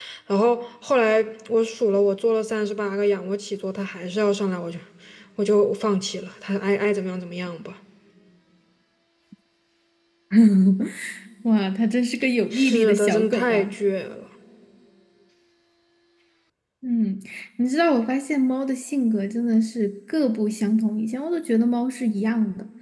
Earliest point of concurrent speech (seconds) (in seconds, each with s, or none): 12.5 s